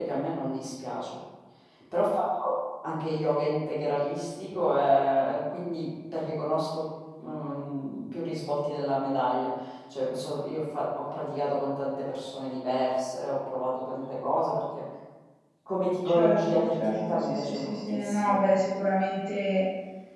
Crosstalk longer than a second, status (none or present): present